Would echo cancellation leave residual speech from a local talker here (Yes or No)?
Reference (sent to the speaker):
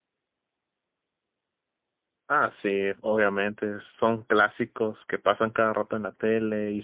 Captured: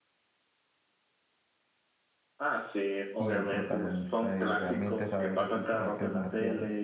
Yes